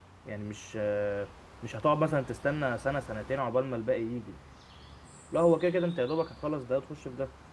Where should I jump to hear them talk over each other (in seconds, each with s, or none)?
none